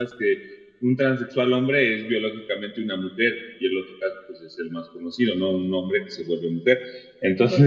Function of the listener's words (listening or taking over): taking over